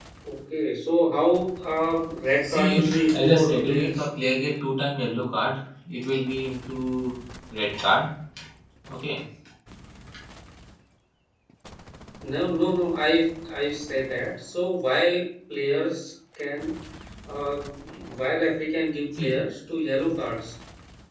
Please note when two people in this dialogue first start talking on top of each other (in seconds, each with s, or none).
2.4 s